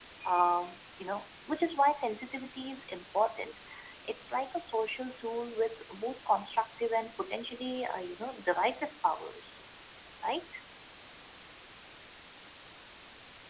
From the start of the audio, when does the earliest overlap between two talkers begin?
none

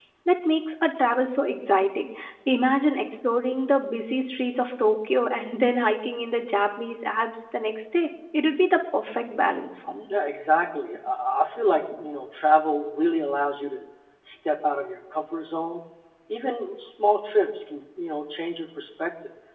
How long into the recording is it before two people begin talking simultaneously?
none

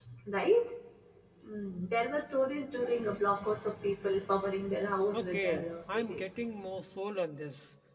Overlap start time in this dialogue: 5 s

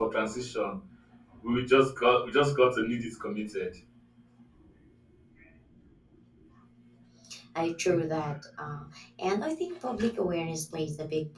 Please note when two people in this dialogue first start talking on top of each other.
none

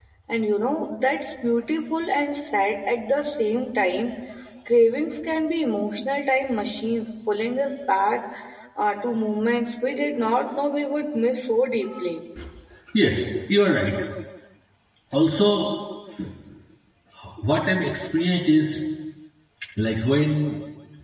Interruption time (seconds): none

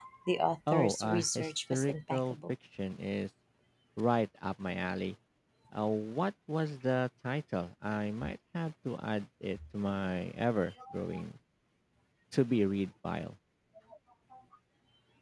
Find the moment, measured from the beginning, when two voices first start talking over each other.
1 s

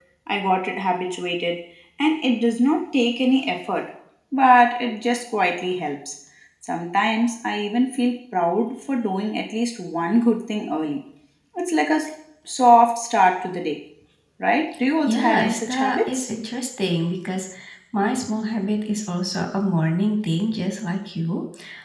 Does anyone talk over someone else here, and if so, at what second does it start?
15 s

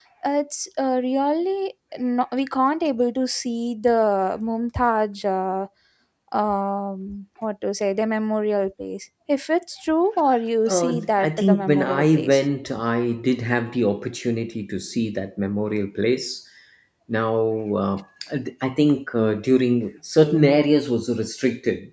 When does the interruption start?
11 s

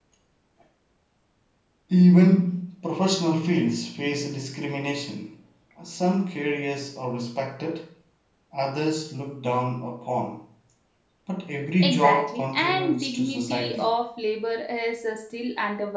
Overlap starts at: 12 s

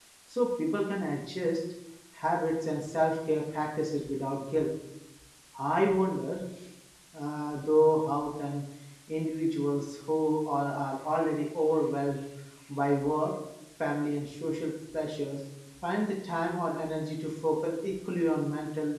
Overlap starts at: none

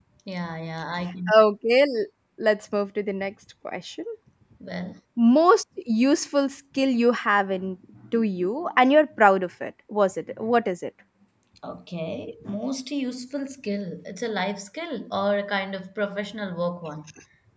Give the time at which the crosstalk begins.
none

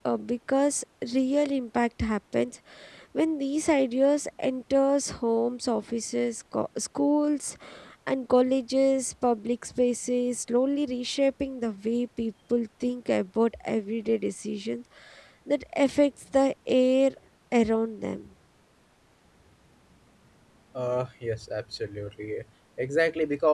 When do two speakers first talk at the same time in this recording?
none

